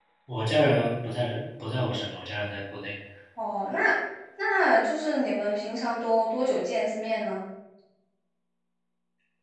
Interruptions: none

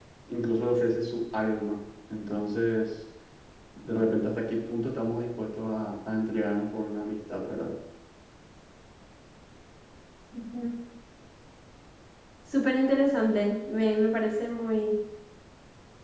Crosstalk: none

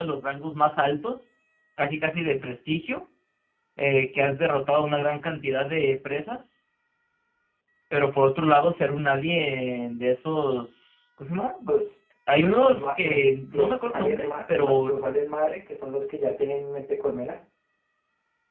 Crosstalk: present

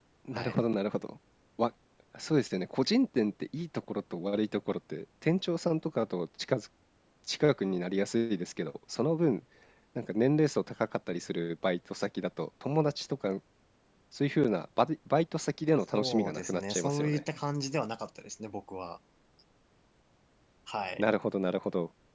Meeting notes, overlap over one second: present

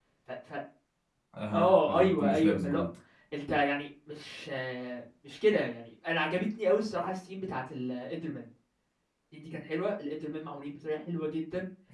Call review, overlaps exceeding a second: present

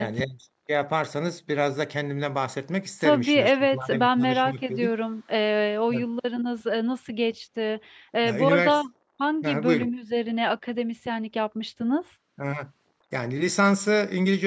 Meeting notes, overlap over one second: present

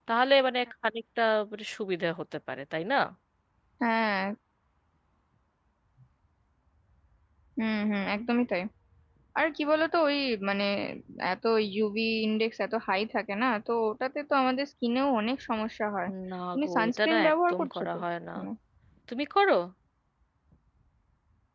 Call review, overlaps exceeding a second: present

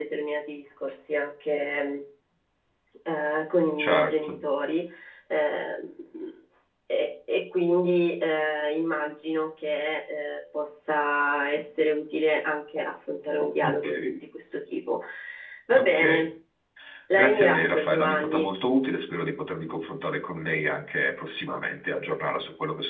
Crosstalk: present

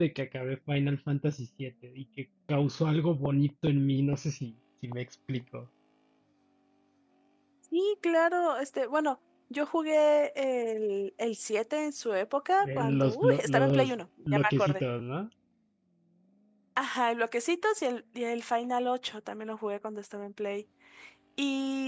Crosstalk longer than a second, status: present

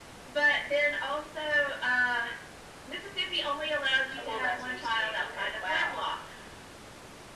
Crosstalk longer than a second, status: present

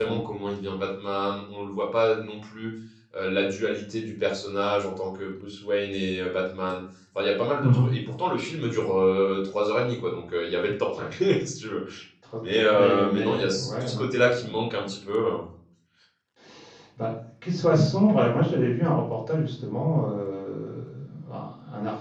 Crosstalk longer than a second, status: present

